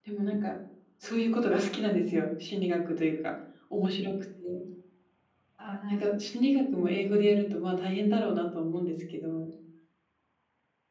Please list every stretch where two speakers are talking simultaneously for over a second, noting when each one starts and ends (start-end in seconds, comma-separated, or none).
none